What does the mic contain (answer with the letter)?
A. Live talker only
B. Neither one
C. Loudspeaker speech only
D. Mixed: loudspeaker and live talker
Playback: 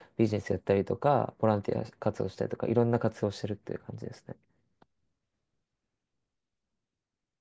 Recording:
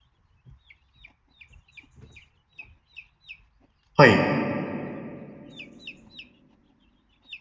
A